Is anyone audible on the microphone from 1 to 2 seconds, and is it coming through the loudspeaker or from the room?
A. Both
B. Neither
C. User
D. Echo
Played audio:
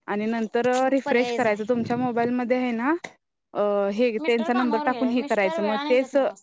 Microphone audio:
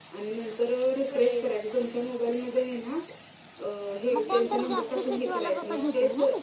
D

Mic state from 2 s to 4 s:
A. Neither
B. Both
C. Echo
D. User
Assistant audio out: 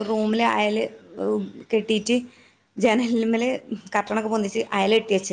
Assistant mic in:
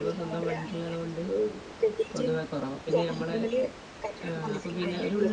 B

